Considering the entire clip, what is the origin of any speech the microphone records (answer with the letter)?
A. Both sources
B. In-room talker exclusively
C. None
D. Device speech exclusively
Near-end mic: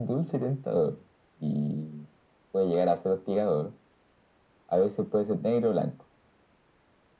D